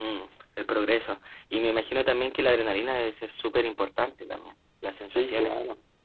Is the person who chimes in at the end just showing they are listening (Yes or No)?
No